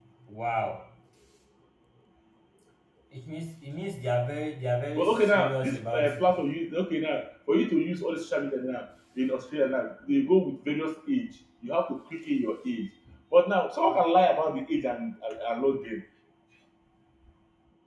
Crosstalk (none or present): present